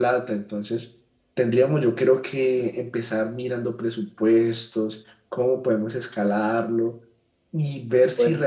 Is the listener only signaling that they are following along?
Yes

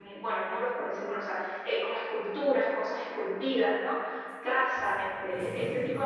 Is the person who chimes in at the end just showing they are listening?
Yes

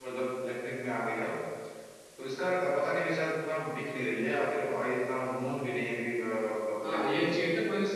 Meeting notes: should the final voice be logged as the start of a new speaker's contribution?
Yes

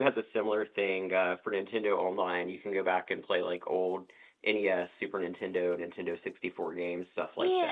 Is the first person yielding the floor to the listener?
Yes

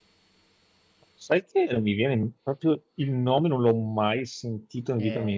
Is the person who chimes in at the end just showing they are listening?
No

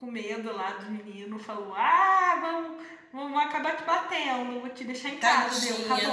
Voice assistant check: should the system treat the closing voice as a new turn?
Yes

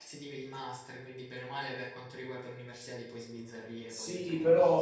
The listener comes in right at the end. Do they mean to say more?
Yes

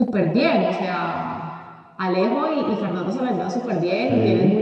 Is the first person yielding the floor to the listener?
No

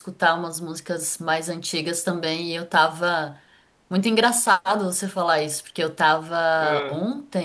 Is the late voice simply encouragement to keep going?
Yes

